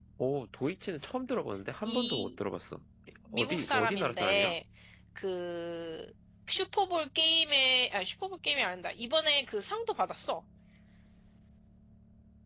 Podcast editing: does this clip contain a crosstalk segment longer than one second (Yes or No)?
Yes